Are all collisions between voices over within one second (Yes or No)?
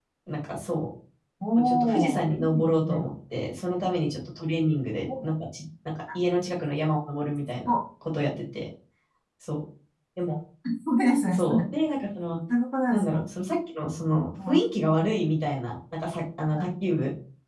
No